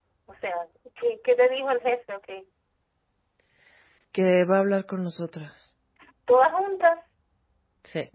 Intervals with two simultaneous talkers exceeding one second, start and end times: none

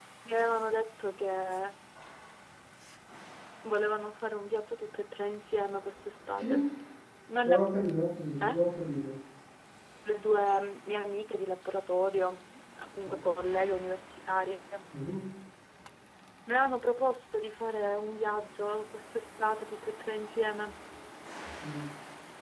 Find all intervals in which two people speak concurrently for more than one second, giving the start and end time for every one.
none

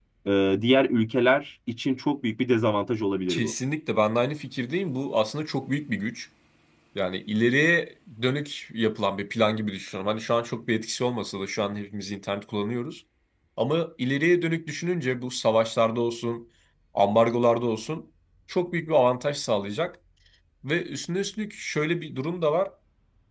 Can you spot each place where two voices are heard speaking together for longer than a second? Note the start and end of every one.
none

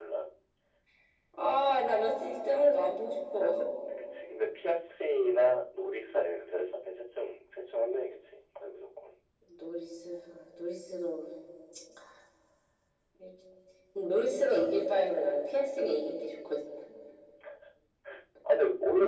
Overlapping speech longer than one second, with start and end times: none

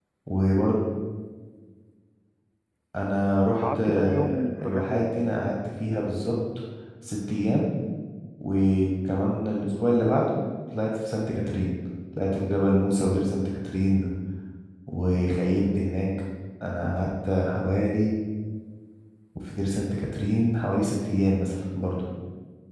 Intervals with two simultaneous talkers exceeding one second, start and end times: 3.6-5.2

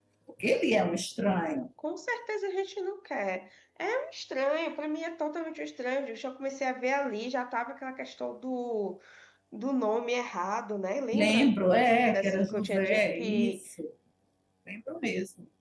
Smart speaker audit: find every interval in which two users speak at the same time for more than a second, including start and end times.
12.1-13.6

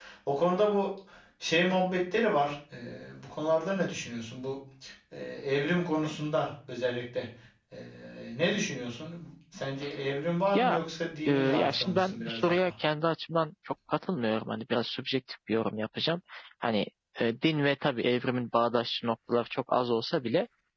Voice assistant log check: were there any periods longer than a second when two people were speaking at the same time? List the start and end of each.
11.2-12.7

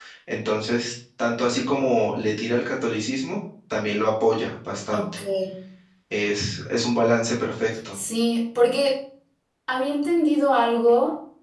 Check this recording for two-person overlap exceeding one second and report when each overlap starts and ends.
none

